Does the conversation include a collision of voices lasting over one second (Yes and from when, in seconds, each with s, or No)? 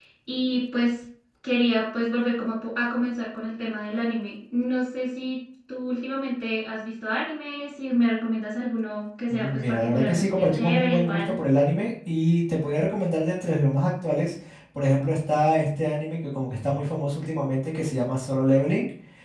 Yes, from 9.3 s